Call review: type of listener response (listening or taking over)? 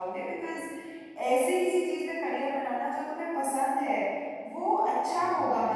listening